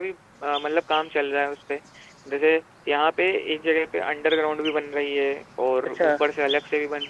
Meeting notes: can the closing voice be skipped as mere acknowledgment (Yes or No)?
Yes